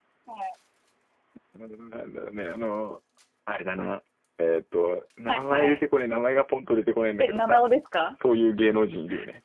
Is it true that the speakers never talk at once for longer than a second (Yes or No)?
Yes